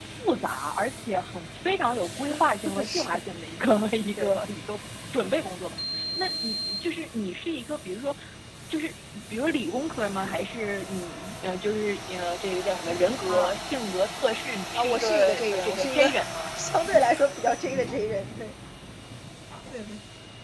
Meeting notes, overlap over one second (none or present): present